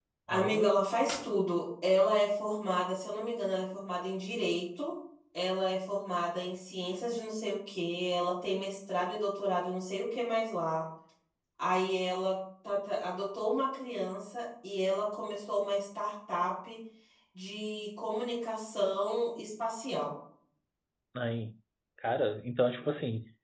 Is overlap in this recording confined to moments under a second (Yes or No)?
Yes